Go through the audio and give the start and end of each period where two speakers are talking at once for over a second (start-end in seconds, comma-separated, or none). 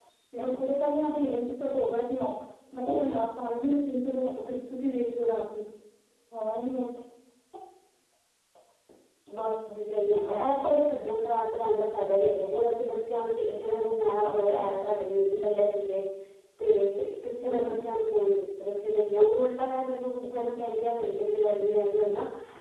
none